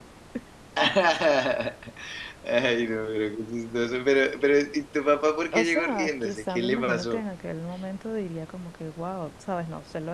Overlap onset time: 5.5 s

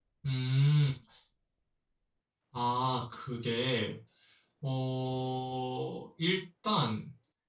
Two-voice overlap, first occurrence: none

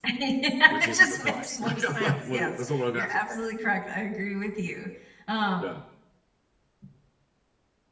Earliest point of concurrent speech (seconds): 0.8 s

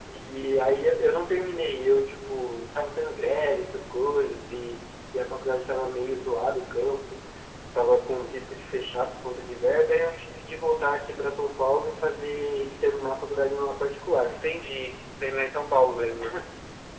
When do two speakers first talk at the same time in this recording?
none

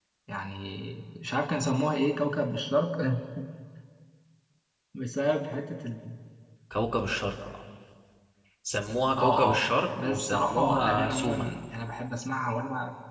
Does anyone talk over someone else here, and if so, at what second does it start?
9.2 s

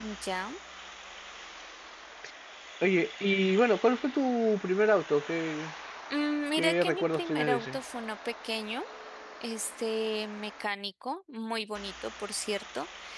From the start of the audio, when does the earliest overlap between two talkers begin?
6.6 s

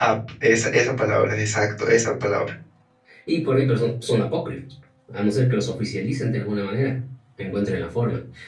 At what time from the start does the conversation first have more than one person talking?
none

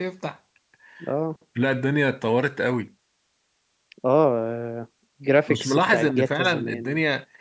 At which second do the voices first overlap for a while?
5.5 s

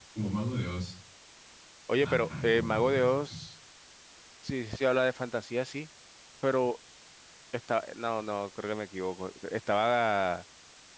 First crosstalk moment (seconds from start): 2.0 s

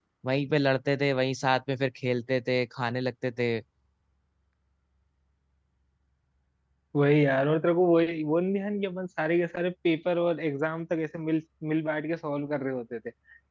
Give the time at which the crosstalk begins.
none

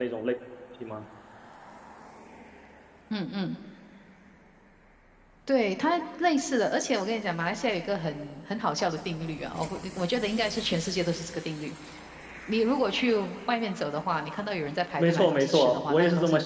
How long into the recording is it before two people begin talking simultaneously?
15.0 s

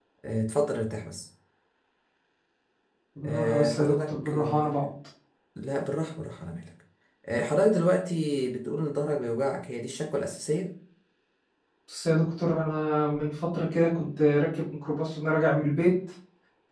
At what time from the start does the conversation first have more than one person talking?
3.2 s

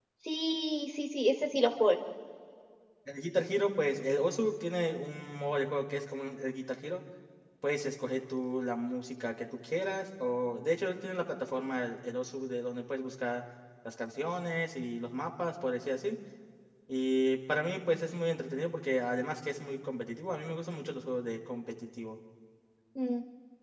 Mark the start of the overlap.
none

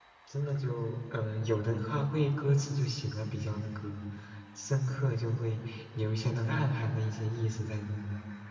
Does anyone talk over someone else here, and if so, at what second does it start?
none

